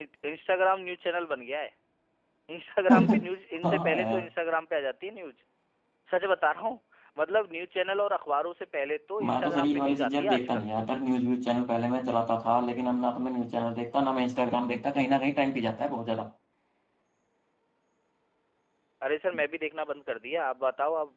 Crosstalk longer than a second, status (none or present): present